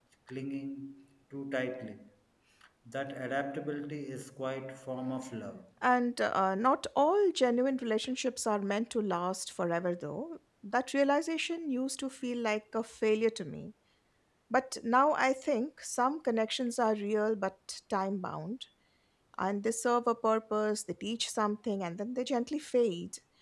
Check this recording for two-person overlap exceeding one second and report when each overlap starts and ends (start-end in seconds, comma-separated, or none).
none